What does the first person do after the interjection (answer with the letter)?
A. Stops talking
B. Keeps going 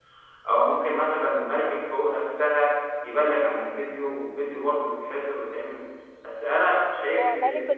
A